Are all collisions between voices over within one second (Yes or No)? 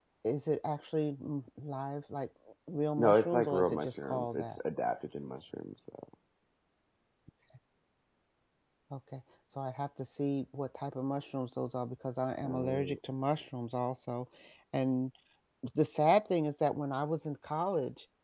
No